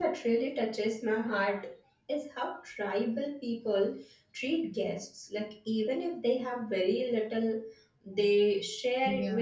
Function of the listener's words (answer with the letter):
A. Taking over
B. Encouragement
B